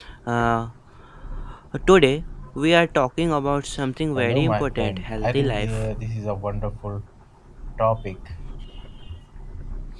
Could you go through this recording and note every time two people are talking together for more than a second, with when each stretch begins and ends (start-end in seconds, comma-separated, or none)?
4.2-5.9